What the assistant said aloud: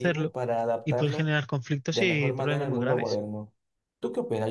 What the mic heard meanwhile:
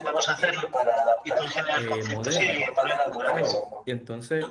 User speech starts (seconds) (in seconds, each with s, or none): 1.8 s